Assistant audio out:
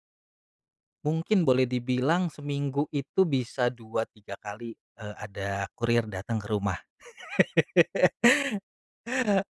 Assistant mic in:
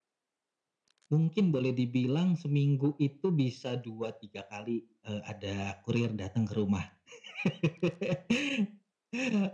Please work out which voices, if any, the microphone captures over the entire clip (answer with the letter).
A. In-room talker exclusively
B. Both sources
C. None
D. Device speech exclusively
D